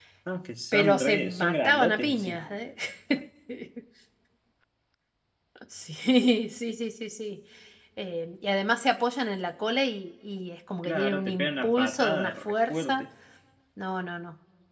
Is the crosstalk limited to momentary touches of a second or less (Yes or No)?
No